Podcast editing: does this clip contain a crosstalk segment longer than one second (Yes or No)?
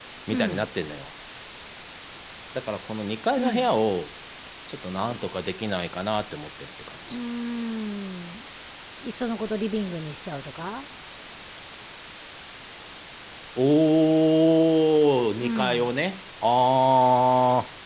No